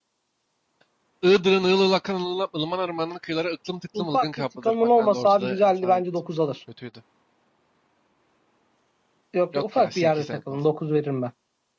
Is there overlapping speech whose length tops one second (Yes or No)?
Yes